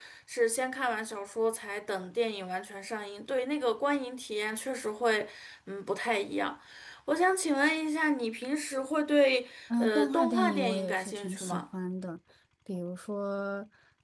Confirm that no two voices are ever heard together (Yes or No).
No